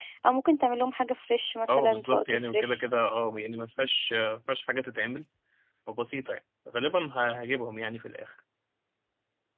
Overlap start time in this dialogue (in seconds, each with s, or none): 1.7 s